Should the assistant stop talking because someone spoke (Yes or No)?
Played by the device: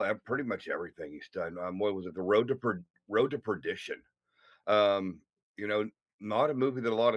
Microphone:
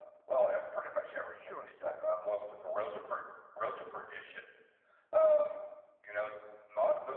Yes